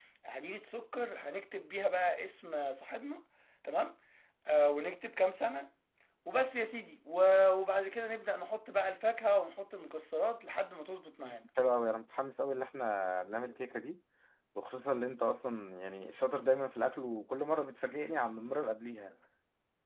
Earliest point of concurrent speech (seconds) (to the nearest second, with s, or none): none